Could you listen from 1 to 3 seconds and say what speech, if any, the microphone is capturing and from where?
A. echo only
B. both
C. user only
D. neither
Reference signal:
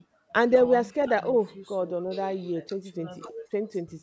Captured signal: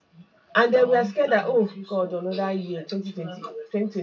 A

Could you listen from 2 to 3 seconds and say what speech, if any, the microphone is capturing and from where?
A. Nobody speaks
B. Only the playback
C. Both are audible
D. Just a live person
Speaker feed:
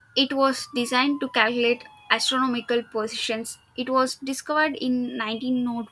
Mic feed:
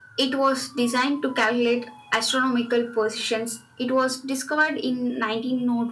B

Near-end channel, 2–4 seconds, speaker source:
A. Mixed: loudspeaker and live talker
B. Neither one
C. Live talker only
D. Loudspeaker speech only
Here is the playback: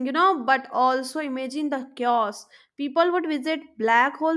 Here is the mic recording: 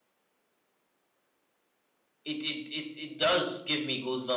C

